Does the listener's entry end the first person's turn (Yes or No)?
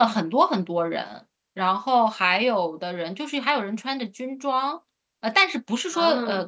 No